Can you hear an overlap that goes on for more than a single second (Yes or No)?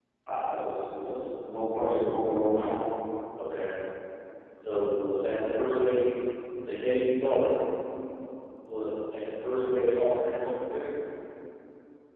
No